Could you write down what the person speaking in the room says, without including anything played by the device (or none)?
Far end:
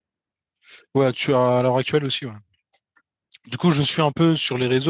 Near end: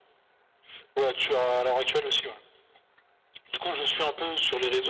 none